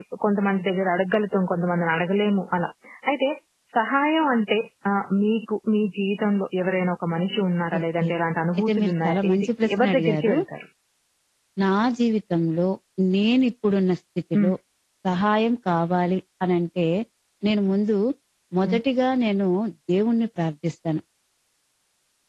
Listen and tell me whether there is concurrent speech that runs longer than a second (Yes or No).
Yes